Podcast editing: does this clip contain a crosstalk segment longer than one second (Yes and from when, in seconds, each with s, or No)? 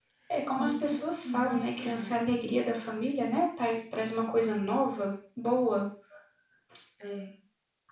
Yes, from 0.6 s